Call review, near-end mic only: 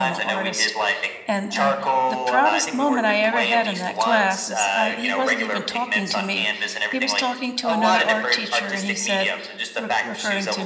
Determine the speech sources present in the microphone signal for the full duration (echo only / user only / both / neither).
both